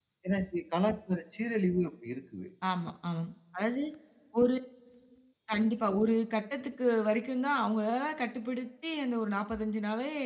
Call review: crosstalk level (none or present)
none